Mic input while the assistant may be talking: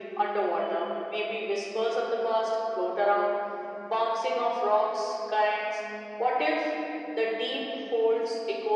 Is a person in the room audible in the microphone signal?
No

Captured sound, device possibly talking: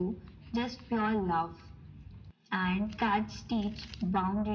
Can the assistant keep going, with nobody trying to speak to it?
Yes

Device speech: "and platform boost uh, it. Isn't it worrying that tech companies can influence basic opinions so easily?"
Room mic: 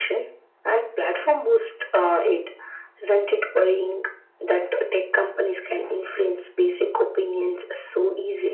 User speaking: No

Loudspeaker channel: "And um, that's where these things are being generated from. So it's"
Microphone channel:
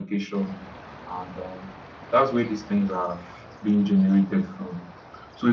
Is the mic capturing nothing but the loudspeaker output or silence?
Yes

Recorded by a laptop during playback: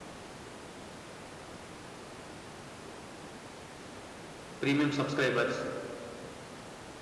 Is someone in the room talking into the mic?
Yes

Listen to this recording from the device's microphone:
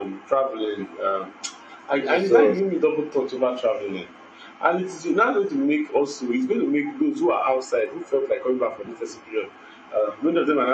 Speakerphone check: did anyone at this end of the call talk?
Yes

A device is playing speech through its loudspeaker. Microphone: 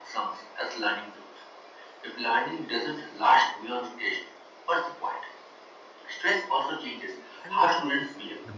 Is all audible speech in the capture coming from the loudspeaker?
No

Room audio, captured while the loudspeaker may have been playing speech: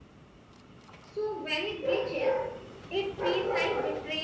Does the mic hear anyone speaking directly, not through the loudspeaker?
No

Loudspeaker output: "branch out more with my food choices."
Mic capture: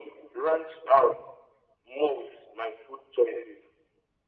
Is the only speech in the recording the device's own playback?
Yes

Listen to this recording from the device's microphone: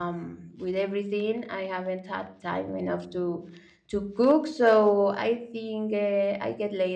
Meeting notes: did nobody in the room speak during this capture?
No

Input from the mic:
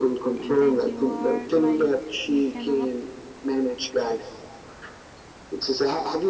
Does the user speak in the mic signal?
Yes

